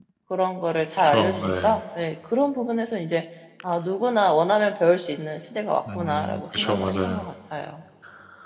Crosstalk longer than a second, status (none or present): present